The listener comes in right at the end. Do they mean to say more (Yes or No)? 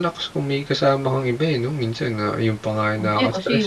Yes